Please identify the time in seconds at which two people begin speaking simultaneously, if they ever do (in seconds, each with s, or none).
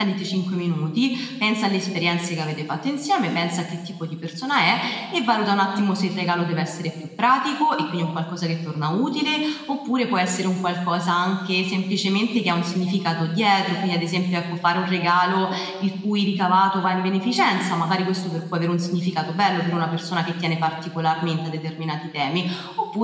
none